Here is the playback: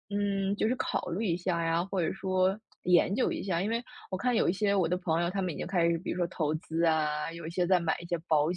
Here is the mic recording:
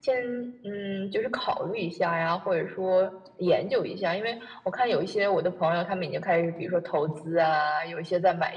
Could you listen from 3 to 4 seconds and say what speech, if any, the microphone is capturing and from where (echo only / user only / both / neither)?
echo only